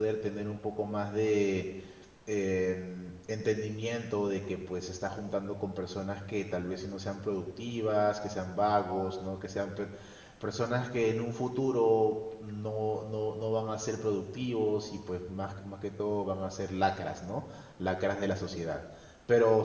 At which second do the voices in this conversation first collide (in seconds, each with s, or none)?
none